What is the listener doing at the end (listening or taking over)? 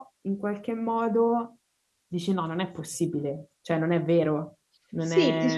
taking over